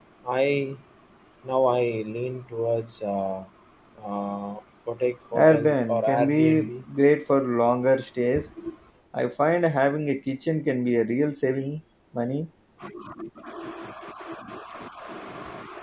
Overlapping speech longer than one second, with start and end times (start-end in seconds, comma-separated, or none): 5.3-6.7